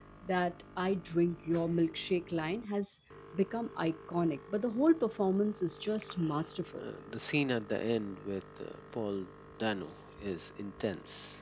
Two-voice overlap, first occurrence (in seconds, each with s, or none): none